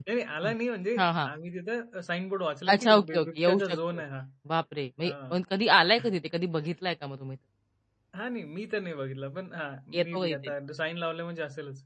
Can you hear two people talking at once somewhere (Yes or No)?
Yes